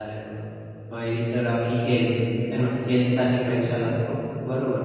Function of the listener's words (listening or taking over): listening